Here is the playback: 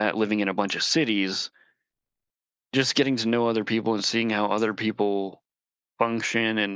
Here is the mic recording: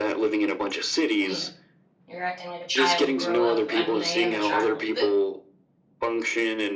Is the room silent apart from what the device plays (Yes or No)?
No